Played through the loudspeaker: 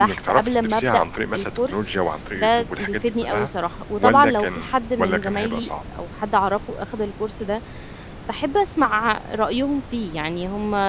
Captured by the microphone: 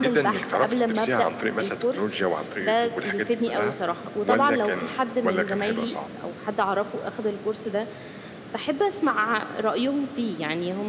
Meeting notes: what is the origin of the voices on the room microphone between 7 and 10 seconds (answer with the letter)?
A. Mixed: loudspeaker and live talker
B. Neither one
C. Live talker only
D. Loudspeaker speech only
D